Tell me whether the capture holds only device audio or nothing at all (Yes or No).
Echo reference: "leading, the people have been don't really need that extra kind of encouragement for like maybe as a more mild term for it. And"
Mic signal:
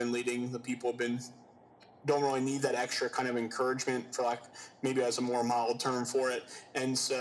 Yes